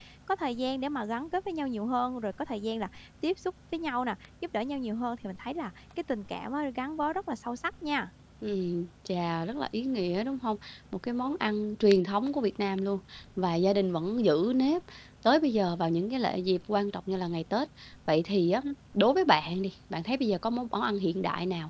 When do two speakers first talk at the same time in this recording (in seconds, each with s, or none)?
none